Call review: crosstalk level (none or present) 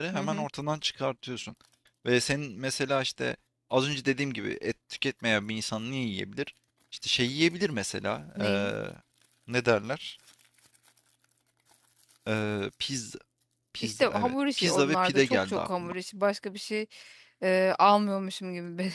present